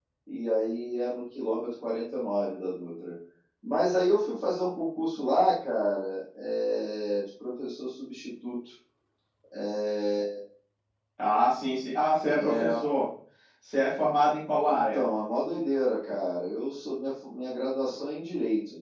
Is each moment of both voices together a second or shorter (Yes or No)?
Yes